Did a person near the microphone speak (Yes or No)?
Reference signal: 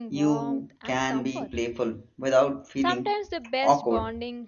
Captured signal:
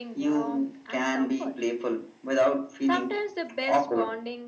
No